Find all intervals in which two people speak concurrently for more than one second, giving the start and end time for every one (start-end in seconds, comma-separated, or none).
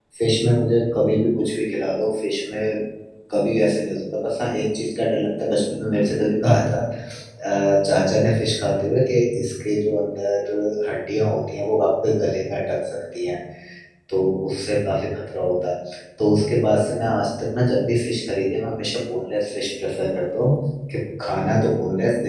none